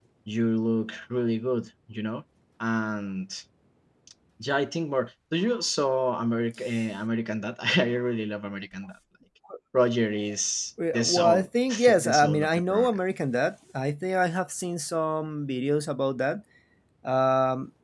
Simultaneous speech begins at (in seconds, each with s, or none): 10.8 s